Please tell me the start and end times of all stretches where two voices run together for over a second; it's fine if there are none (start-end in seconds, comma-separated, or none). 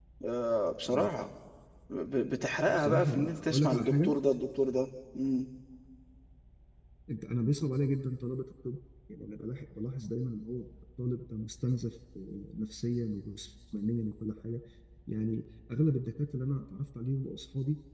2.6-4.1